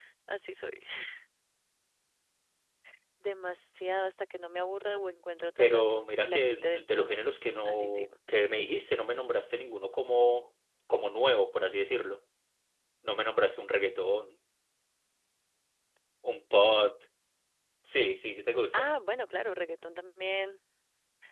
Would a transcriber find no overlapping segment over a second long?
No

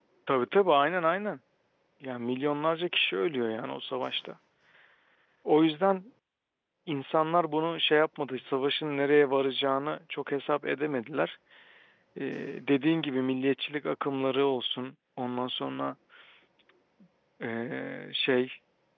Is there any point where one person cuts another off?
No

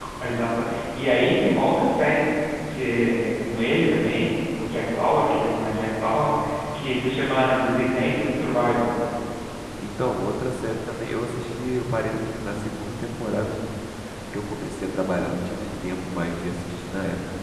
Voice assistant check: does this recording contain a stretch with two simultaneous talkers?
No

